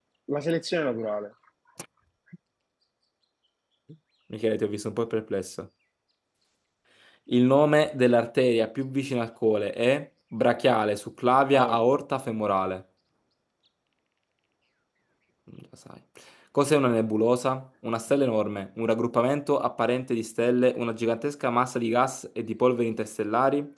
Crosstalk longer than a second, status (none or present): none